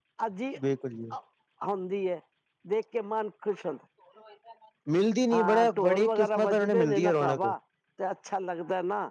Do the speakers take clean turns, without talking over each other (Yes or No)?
No